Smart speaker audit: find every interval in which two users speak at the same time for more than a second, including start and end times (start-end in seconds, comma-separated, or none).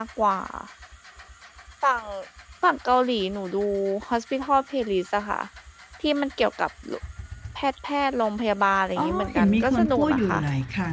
9.0-10.4